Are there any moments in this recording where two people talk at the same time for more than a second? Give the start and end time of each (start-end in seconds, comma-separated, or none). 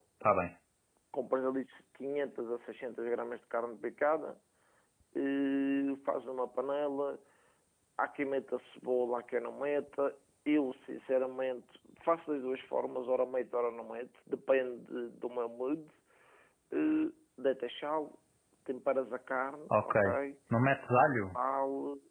none